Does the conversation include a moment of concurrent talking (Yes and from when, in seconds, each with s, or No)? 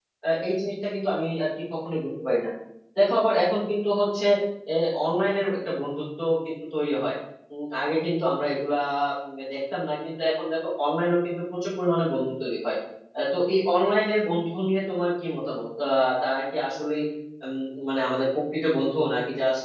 No